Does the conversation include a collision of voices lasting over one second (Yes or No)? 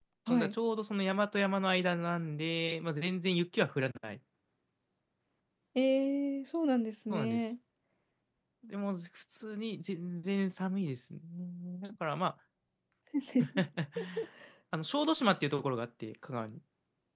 No